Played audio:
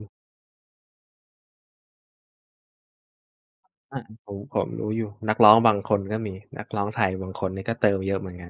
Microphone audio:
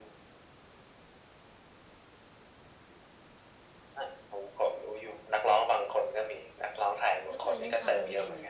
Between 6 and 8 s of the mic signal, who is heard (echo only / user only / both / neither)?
both